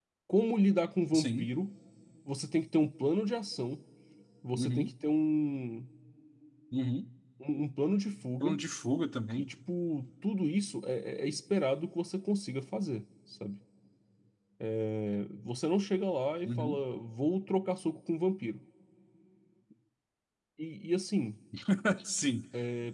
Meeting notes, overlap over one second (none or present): none